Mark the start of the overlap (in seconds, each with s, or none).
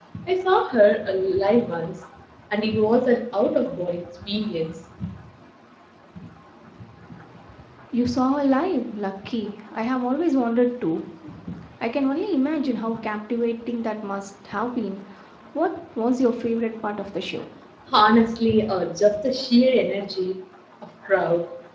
none